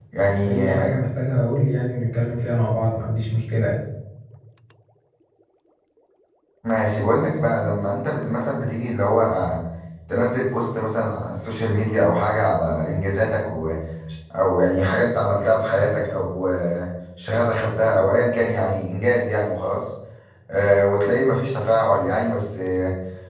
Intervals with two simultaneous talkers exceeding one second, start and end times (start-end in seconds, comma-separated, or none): none